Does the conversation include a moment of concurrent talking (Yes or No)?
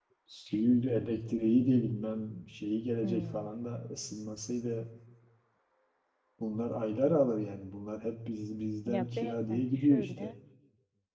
Yes